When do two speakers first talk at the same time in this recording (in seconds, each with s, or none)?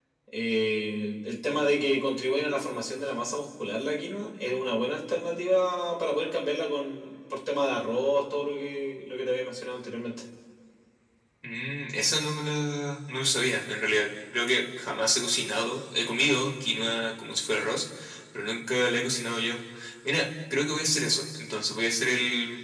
none